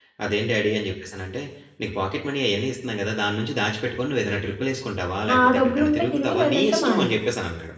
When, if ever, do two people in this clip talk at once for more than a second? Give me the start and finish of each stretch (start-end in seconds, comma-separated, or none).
5.3-7.1